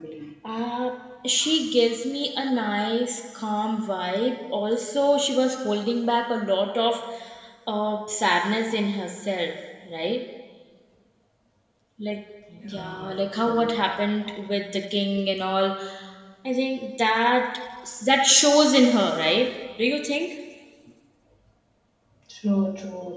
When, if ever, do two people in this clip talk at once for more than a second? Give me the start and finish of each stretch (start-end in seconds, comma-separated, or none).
12.6-13.8